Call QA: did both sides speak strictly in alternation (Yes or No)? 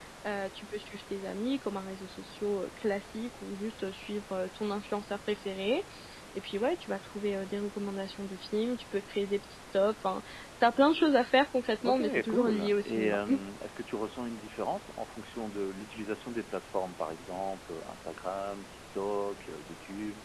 No